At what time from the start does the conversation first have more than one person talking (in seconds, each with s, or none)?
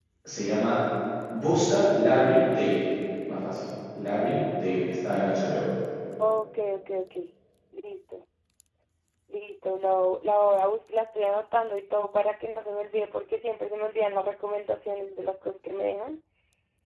none